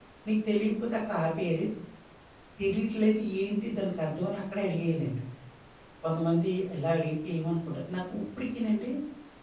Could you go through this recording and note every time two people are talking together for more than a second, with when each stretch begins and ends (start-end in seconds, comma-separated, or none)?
none